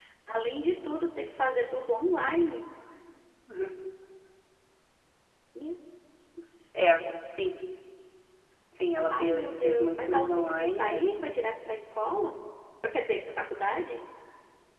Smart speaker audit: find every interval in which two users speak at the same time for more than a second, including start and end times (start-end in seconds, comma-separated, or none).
9.1-11.0